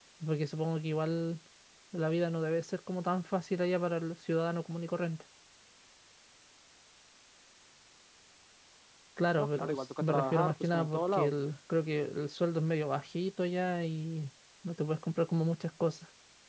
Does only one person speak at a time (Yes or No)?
No